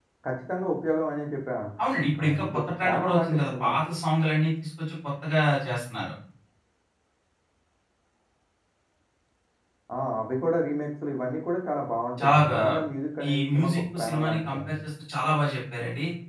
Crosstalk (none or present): present